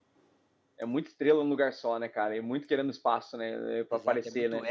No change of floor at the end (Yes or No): No